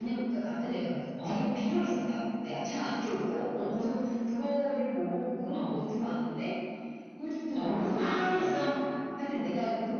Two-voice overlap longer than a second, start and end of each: 7.5-8.7

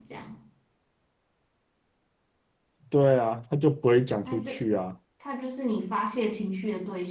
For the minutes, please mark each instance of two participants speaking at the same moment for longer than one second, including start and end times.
none

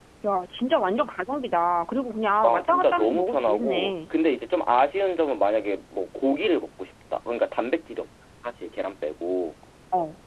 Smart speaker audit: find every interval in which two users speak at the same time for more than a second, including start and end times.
2.4-3.9

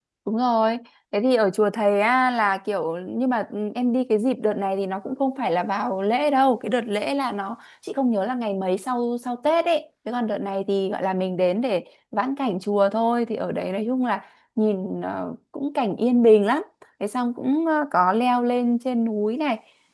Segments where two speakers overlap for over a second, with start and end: none

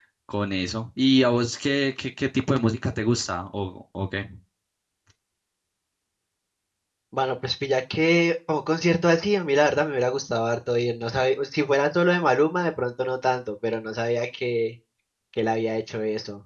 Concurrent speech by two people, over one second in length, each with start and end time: none

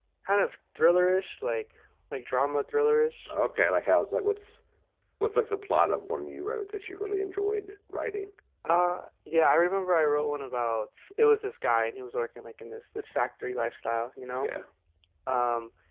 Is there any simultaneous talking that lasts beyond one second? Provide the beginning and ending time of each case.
none

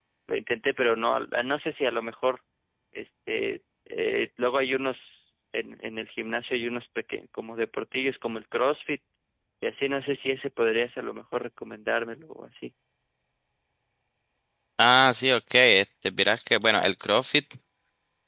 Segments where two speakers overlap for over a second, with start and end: none

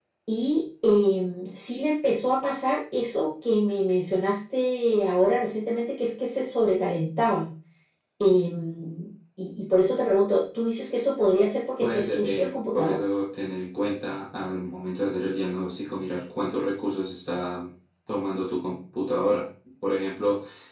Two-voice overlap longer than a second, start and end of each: 11.8-13.0

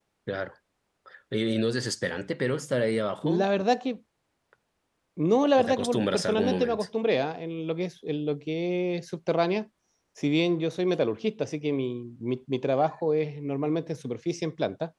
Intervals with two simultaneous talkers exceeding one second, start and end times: 5.6-6.8

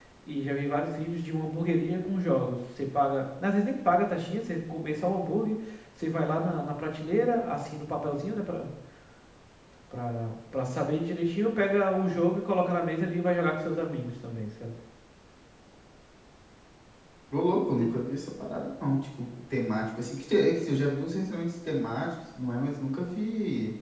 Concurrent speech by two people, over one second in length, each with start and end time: none

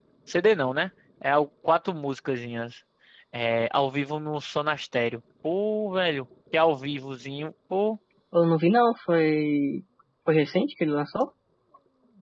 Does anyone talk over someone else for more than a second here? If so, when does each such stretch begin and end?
none

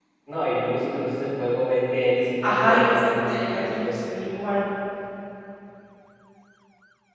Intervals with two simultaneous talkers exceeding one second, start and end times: 2.4-3.9

